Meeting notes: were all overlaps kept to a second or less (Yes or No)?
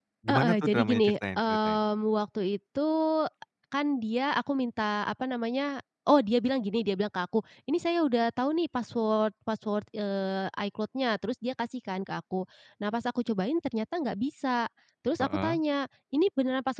No